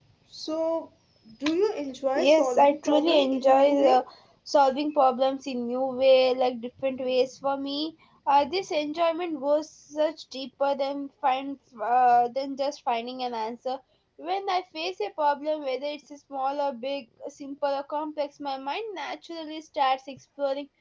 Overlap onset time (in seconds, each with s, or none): 2.2 s